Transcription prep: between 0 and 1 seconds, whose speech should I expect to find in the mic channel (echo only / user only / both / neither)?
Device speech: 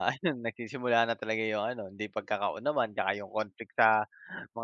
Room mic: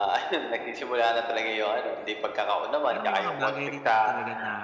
echo only